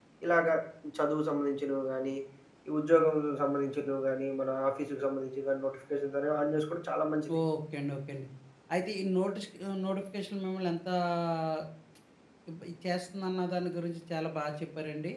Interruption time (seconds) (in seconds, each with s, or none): none